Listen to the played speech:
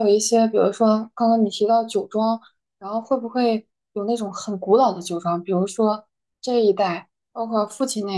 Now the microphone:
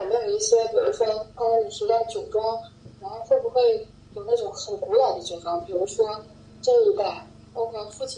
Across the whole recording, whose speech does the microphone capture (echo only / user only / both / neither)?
echo only